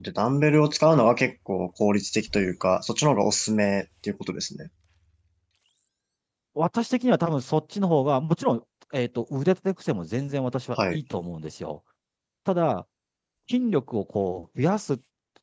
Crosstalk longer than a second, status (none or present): none